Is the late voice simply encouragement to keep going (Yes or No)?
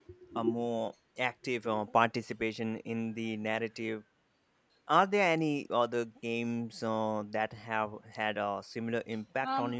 No